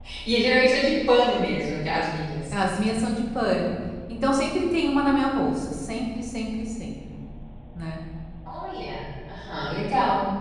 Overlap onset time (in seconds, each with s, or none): none